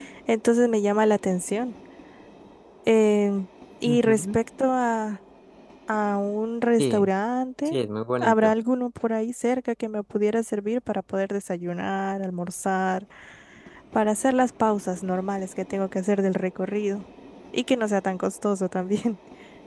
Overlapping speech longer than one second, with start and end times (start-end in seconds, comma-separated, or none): none